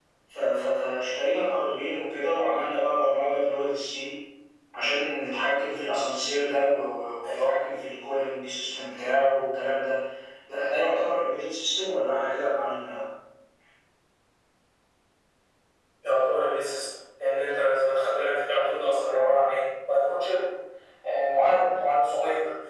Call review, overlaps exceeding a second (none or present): none